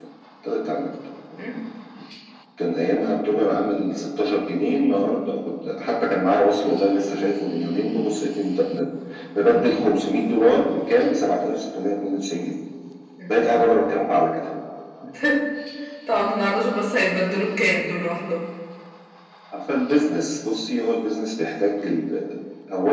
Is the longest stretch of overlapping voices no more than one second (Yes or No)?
Yes